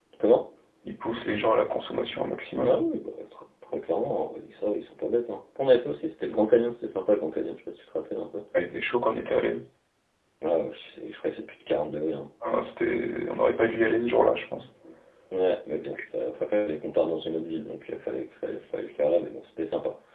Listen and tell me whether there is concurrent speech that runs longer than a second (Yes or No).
No